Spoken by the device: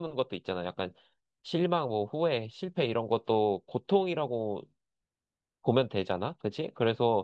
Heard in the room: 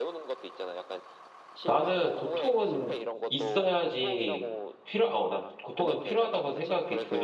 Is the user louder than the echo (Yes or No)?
Yes